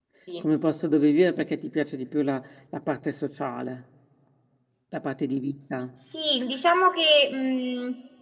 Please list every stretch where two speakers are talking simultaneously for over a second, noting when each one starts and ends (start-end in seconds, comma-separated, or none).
none